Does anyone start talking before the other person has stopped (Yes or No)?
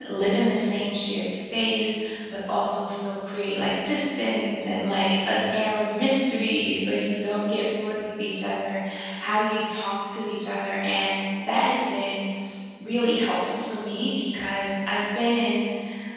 No